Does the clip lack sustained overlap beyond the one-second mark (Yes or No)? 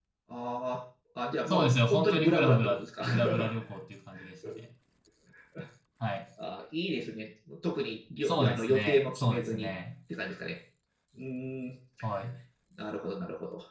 No